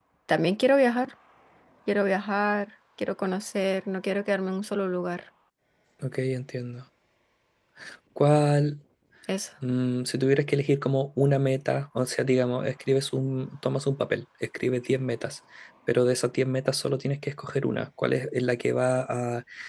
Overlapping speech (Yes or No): No